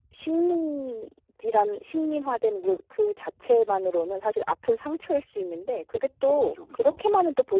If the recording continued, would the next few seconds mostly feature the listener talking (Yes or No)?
No